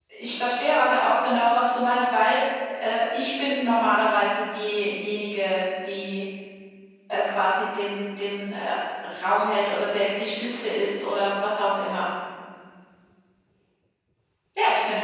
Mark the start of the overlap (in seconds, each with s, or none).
none